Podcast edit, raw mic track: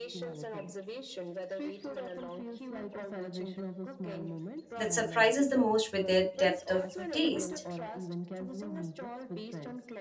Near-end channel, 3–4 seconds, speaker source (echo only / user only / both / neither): echo only